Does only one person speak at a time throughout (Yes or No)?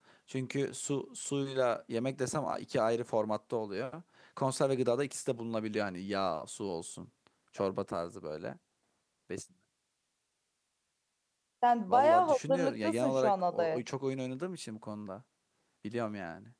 No